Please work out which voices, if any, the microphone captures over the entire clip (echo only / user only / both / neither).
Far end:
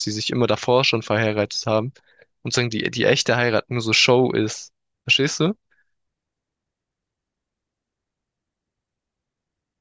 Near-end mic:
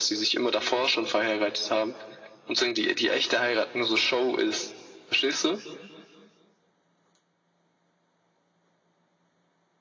echo only